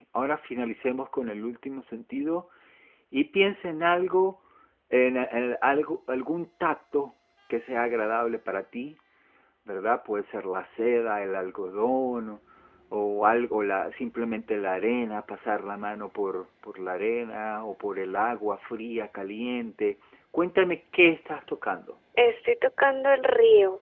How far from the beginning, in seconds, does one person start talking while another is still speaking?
none

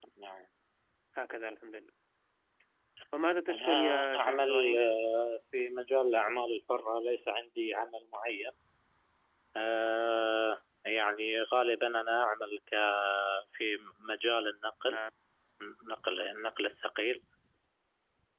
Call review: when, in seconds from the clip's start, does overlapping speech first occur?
3.5 s

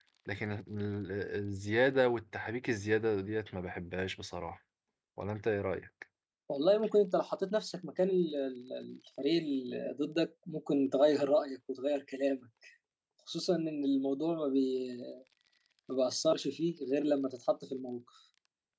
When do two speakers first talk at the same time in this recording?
none

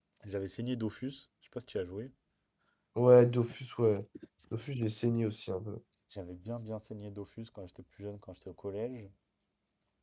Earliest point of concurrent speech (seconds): none

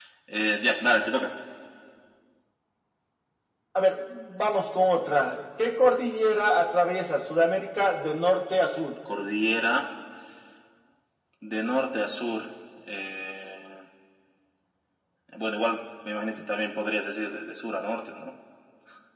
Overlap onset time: none

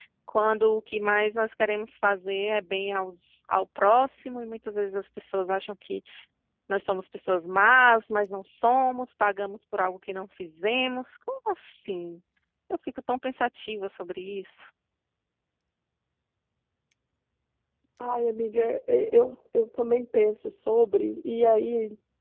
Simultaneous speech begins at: none

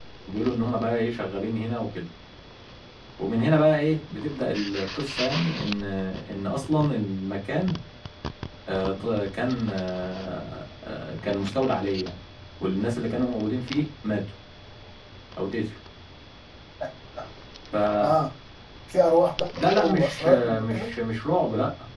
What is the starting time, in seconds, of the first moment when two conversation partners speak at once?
19.6 s

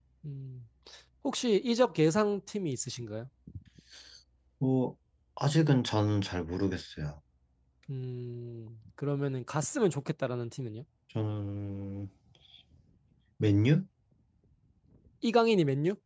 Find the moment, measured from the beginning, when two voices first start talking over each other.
none

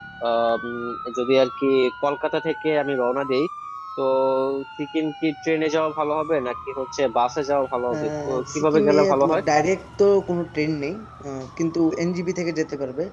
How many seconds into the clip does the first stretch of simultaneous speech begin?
7.9 s

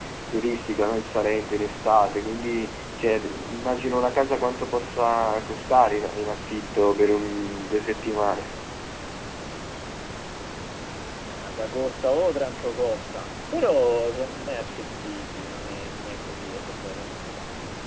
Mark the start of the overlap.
none

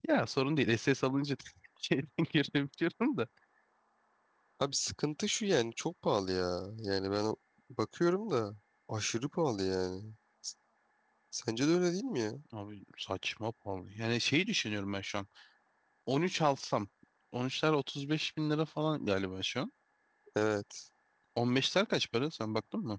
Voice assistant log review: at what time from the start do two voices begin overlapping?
none

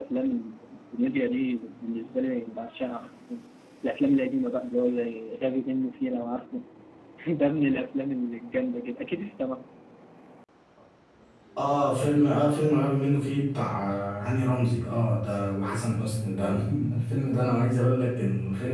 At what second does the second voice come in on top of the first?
none

